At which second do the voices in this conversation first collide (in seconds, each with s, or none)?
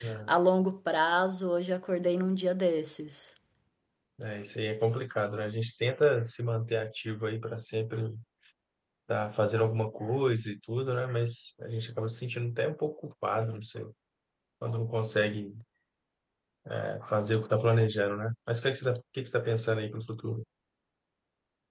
none